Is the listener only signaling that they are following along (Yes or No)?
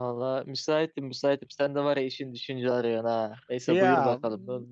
No